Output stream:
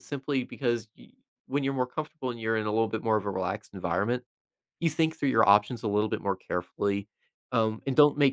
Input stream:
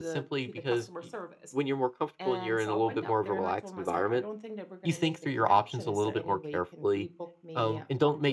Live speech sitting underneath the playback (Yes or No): Yes